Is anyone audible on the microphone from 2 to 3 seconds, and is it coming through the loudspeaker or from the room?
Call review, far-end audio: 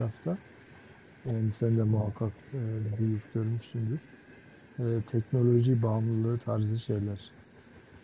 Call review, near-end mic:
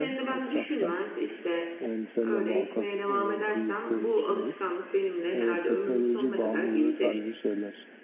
both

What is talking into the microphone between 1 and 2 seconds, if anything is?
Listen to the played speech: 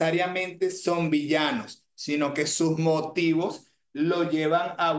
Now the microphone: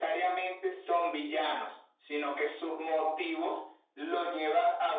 echo only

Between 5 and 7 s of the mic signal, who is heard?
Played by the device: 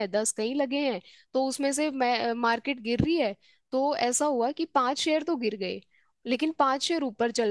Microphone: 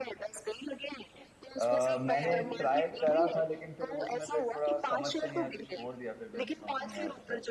both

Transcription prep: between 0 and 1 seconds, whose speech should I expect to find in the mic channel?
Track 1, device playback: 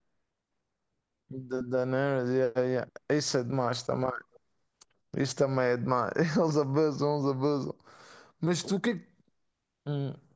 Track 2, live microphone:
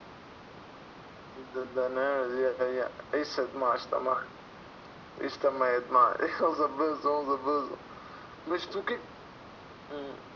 neither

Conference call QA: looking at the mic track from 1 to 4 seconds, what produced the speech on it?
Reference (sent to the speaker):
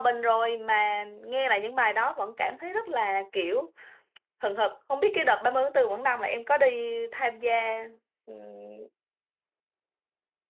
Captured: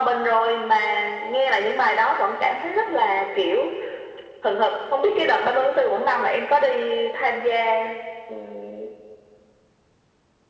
echo only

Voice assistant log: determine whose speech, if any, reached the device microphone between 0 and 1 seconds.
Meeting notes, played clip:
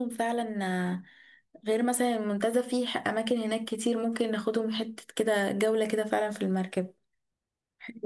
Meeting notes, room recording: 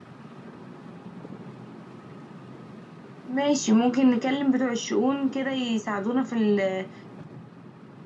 neither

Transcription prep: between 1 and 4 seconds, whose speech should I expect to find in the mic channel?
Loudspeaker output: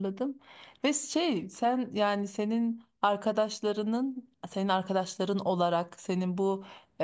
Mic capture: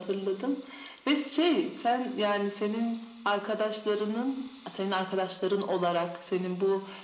echo only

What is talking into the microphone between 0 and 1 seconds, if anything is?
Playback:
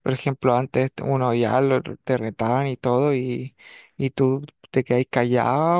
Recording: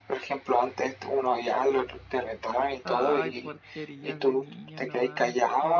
echo only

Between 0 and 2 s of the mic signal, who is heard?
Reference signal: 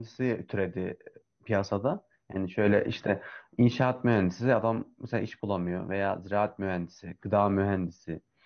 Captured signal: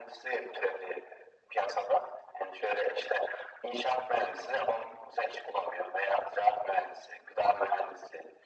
echo only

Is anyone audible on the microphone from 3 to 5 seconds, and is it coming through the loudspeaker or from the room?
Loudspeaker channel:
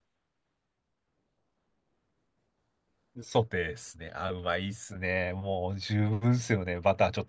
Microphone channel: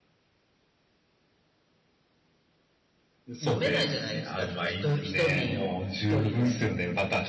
both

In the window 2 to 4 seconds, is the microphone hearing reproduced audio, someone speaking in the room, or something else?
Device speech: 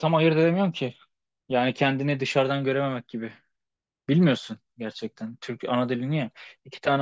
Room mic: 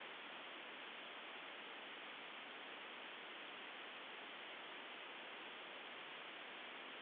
neither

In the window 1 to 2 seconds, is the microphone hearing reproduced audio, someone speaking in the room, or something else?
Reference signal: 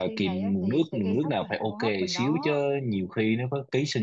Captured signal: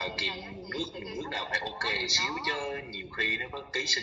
echo only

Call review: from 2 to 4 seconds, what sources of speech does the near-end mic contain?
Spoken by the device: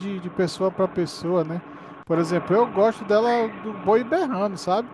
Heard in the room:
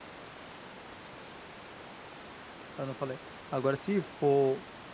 user only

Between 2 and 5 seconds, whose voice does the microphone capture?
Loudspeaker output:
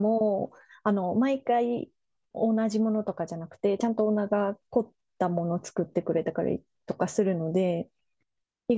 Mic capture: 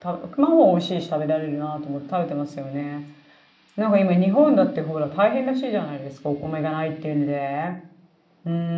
user only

